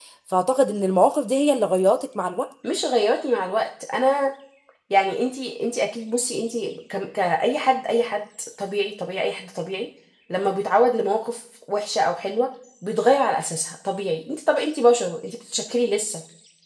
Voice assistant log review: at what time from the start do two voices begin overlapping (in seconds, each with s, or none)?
none